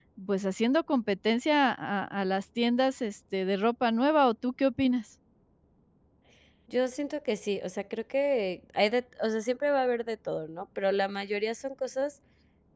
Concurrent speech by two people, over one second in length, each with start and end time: none

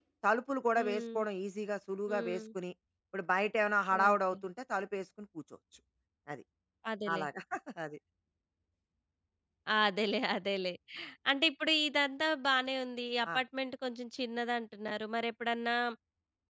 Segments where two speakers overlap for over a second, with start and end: none

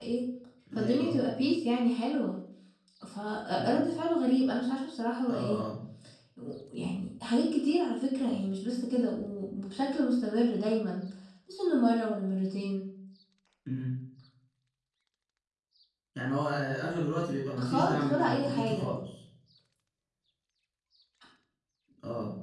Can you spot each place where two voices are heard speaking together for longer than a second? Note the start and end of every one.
17.6-18.9

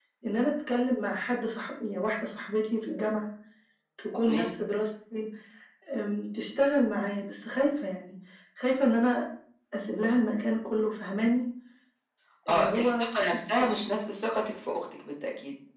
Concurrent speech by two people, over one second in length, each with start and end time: 12.5-13.9

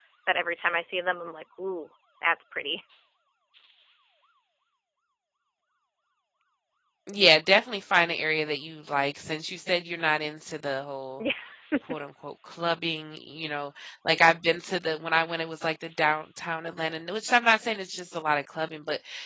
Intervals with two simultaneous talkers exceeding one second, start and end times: none

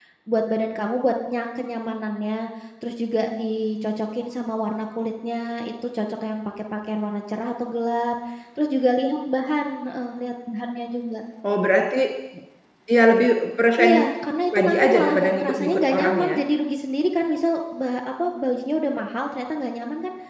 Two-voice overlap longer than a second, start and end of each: 14.5-16.3

